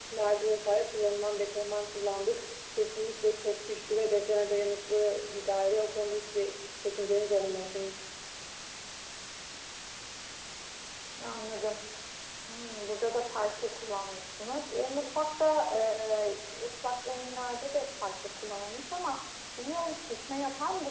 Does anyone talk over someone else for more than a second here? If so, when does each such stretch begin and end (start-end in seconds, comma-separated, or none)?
none